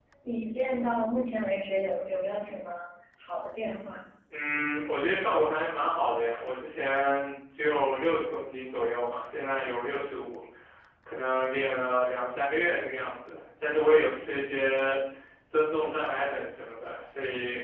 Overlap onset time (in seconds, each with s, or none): none